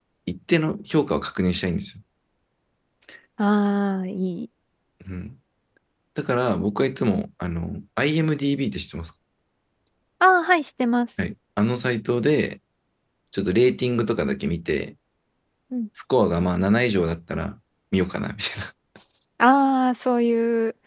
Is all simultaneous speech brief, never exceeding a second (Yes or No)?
Yes